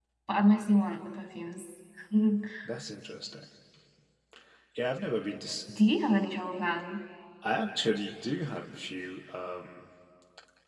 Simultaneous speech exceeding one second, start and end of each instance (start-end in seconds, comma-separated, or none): none